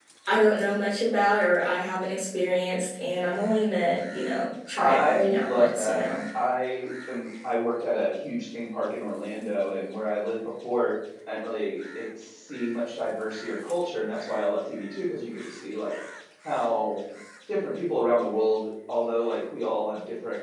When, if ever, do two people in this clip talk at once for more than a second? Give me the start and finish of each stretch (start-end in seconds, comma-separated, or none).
4.8-6.0